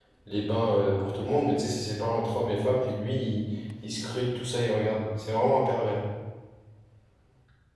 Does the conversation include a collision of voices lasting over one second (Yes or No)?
No